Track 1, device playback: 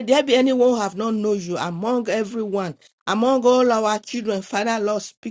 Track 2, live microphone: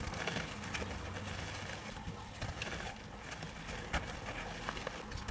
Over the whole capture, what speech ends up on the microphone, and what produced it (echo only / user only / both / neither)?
neither